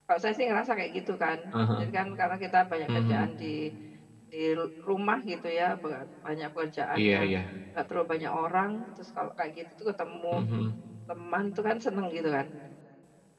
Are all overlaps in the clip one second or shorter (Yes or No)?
Yes